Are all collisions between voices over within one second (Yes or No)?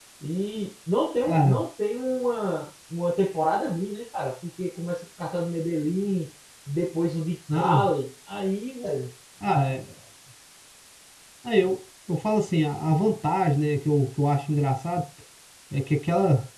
Yes